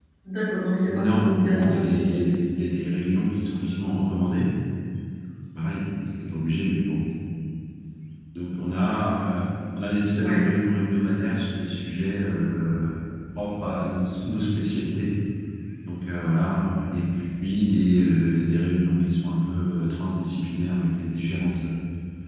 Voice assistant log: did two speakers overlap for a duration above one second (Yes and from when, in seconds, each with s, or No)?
Yes, from 0.9 s